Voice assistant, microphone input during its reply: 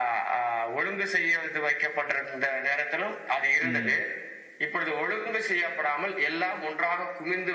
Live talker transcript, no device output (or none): ம்.